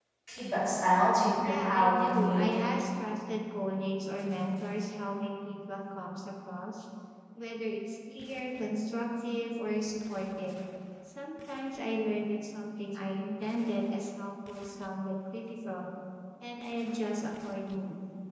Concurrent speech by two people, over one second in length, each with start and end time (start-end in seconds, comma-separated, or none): 1.4-2.7